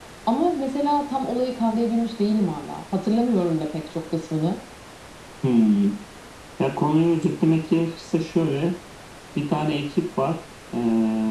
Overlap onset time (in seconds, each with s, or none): none